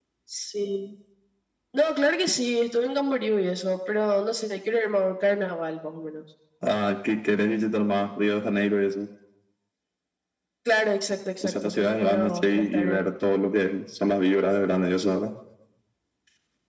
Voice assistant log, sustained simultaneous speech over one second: present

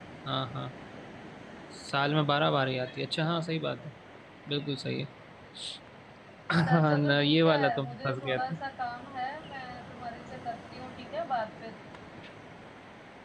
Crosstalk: present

